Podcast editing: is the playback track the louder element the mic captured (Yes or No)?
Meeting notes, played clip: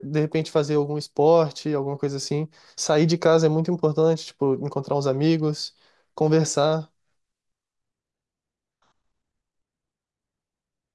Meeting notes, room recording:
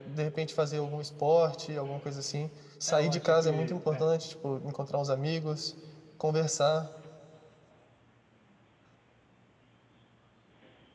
Yes